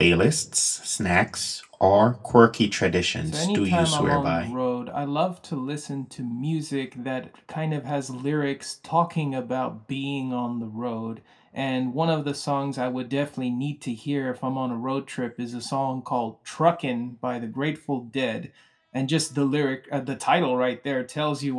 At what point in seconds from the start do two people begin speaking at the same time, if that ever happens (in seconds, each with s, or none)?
3.2 s